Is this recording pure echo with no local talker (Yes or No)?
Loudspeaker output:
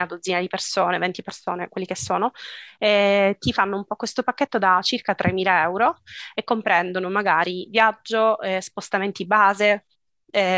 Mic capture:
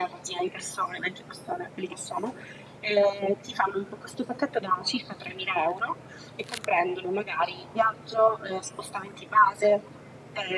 Yes